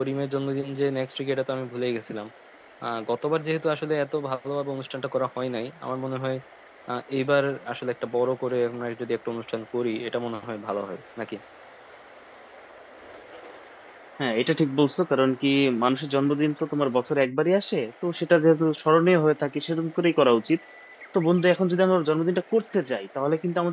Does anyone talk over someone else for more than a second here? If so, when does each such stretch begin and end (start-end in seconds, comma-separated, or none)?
none